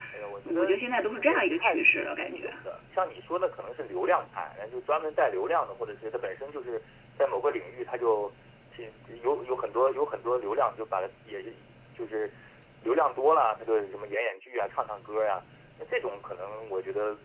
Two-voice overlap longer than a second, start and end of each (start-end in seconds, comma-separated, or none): 1.2-2.5